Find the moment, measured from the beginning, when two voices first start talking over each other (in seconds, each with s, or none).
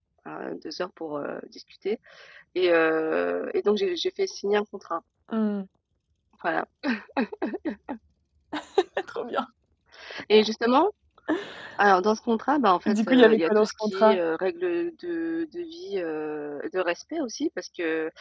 12.9 s